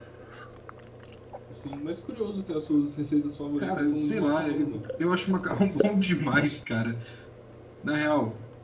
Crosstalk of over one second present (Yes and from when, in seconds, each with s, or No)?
Yes, from 3.6 s